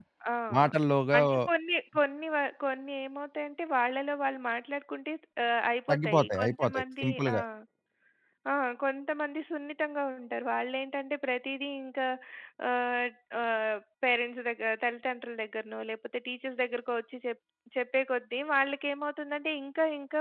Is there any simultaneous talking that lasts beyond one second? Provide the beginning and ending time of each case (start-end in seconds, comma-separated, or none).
5.9-7.3